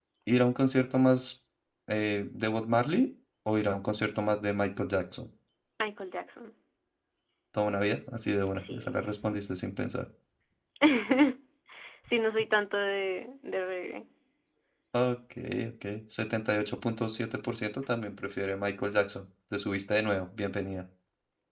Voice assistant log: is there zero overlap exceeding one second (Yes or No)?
Yes